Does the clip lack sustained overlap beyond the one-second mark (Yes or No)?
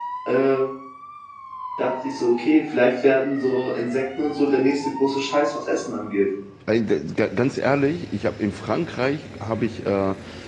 Yes